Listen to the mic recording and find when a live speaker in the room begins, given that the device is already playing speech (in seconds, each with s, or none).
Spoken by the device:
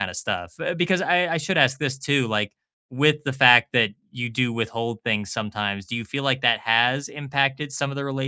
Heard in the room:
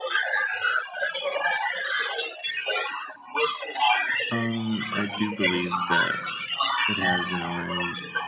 4.3 s